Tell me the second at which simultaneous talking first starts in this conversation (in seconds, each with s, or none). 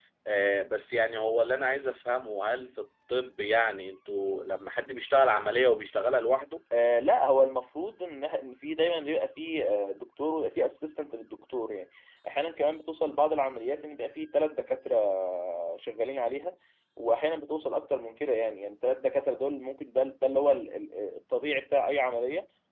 none